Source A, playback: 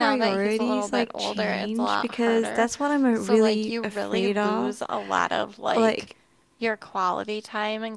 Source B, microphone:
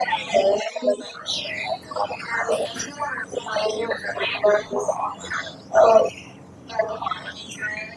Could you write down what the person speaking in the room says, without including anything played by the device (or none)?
none